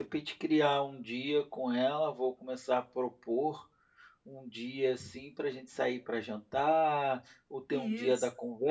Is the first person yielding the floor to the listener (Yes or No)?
No